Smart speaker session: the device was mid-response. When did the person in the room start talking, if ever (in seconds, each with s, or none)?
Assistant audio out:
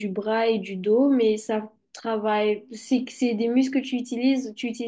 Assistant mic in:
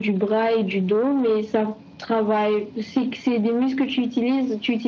none